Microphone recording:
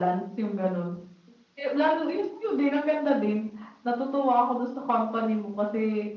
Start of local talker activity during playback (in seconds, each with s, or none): none